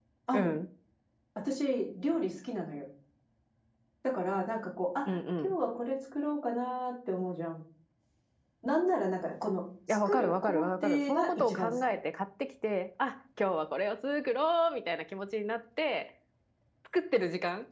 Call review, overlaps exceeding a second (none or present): present